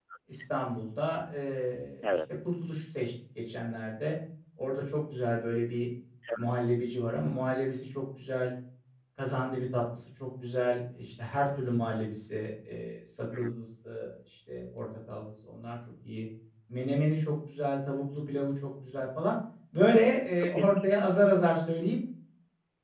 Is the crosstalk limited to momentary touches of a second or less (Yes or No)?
Yes